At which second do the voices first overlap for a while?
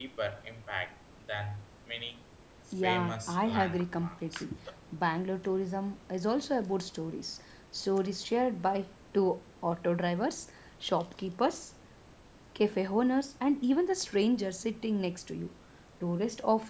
2.7 s

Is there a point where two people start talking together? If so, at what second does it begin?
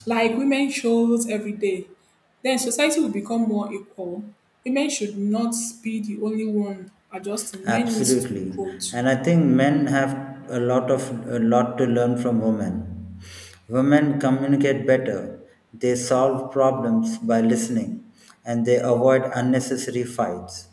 7.6 s

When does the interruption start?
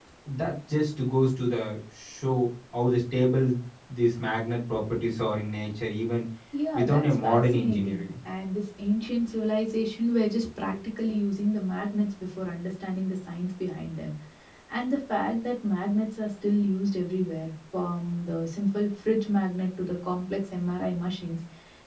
6.7 s

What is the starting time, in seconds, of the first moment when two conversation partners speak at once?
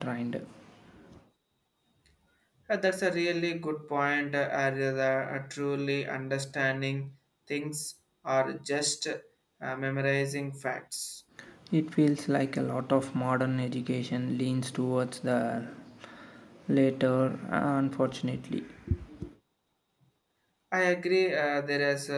none

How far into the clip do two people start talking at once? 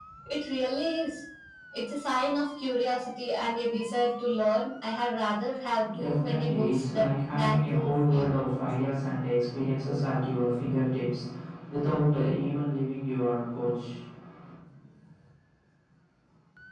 5.8 s

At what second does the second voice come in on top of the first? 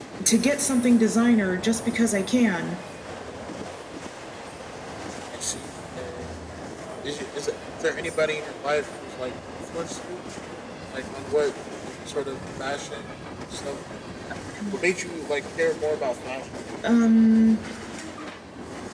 none

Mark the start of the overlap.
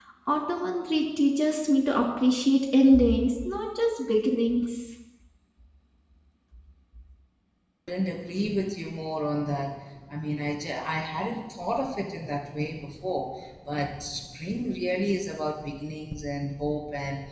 none

